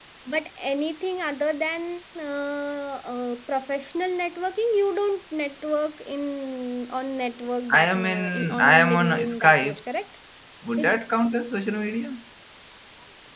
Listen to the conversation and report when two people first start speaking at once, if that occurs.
8 s

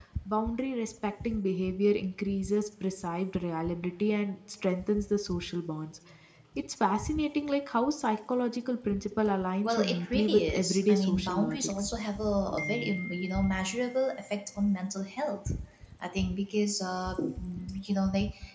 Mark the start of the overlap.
10 s

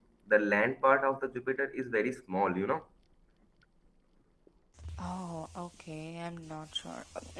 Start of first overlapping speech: none

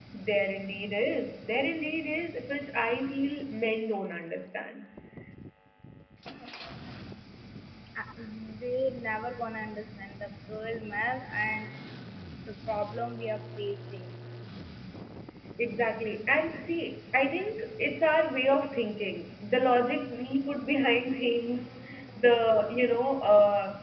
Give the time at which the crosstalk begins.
none

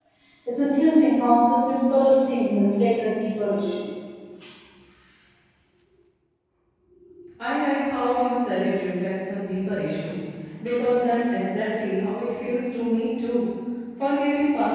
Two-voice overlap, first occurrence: none

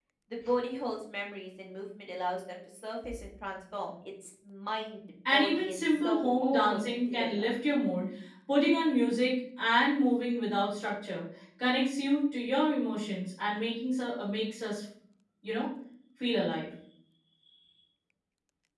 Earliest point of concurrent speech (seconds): 5 s

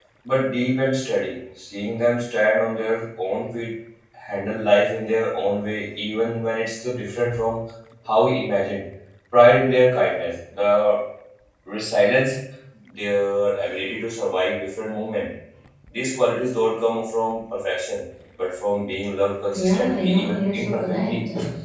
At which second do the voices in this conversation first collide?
20 s

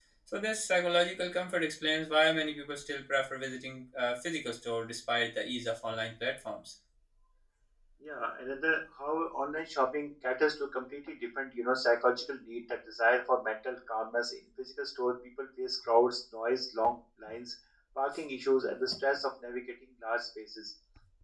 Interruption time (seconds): none

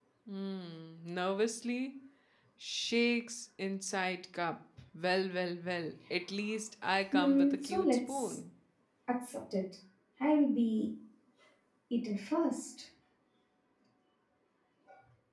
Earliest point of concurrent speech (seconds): 7 s

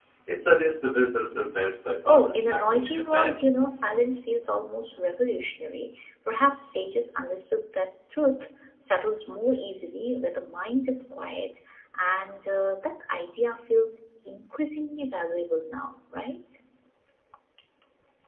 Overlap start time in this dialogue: 2 s

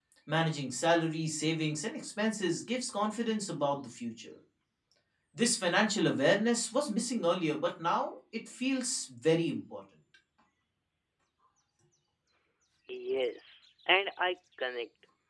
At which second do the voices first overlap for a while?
none

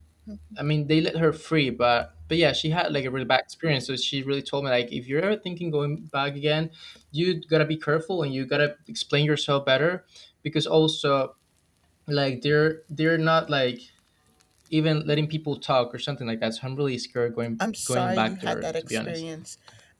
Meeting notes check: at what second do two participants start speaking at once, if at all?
18 s

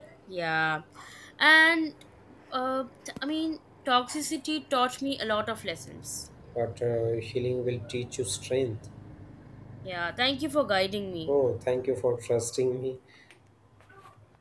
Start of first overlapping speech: none

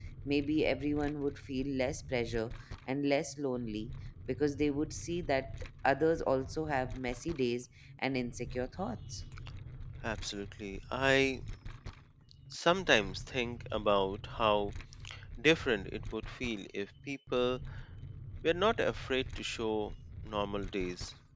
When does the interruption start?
none

